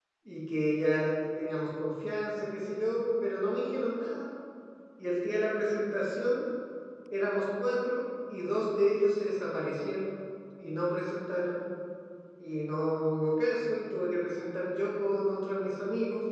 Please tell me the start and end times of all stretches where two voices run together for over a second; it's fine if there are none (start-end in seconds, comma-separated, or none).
none